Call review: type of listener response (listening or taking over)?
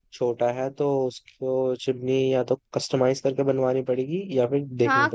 taking over